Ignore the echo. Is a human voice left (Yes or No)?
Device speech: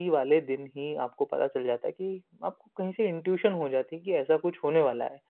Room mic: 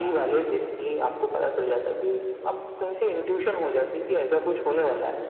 No